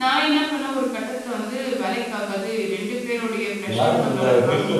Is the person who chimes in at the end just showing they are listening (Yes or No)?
No